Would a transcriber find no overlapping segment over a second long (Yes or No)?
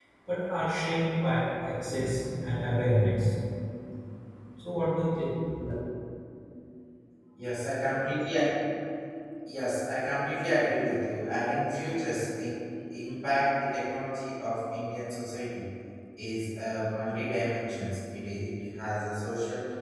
Yes